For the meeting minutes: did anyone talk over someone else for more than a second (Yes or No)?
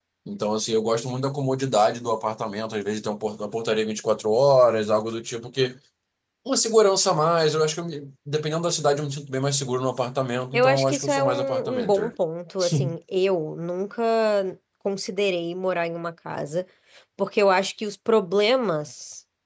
Yes